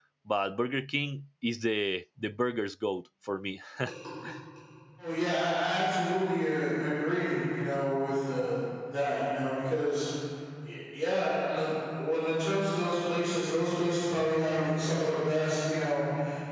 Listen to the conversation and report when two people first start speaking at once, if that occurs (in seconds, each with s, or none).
none